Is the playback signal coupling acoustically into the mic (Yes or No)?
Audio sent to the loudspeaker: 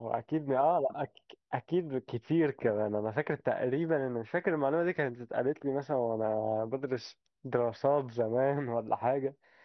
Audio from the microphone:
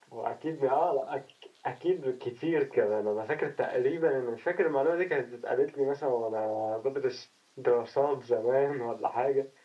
Yes